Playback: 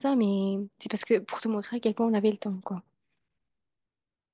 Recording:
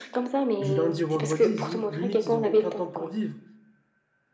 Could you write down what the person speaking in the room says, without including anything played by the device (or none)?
Du lundi au vendredi, ils- im- limite, ils n'ont aucun temps pour vivre.